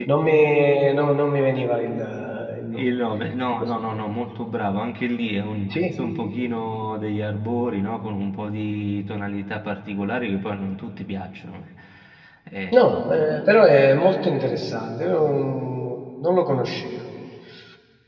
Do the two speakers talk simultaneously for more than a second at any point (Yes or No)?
No